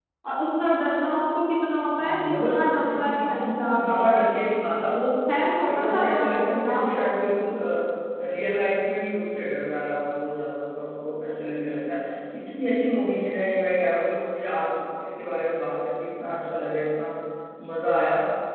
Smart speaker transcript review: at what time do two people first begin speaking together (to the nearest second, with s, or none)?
2 s